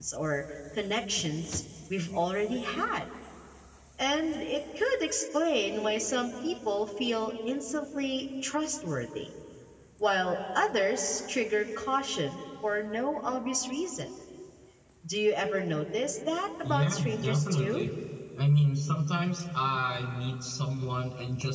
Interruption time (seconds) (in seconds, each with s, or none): 16.6 s